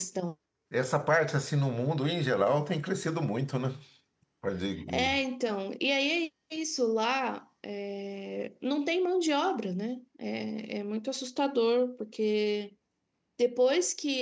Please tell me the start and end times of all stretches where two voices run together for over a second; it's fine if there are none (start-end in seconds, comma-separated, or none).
none